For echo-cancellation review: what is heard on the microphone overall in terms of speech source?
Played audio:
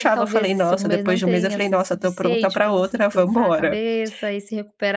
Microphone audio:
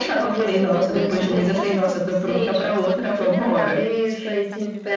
both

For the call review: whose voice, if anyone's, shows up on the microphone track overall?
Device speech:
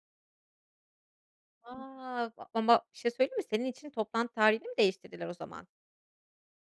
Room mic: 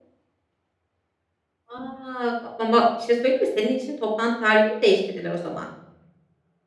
echo only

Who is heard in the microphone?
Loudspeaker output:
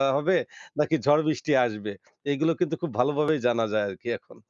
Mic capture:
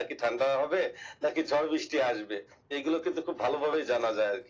echo only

